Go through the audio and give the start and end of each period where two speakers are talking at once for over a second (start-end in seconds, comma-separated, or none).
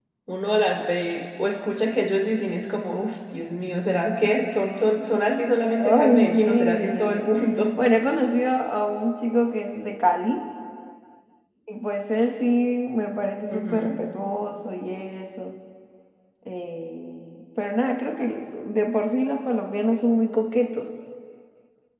5.8-7.3